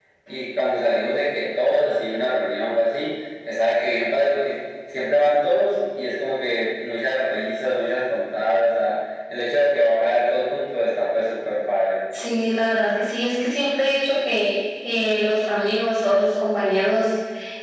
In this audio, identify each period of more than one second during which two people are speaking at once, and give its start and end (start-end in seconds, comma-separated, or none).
none